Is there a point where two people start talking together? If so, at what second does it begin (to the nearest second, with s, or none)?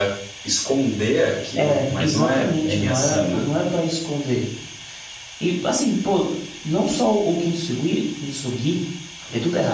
2 s